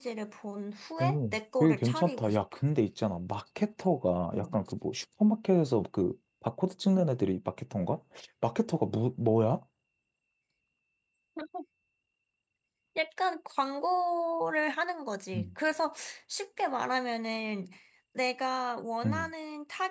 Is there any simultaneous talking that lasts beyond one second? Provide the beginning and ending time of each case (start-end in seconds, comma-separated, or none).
1.0-2.4